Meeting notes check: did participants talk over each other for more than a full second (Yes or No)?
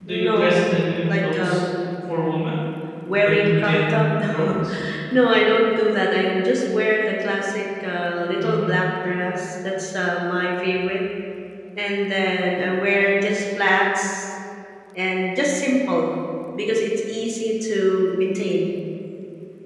Yes